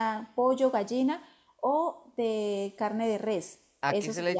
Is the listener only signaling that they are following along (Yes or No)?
No